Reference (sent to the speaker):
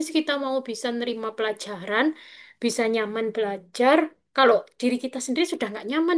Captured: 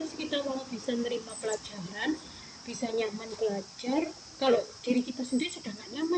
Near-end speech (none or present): none